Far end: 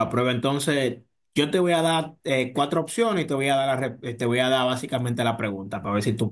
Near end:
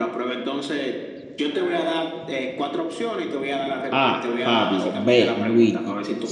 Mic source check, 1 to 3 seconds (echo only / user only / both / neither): echo only